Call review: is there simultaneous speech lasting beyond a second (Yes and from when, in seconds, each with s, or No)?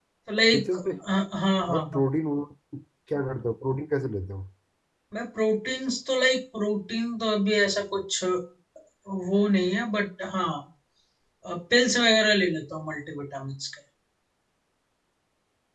No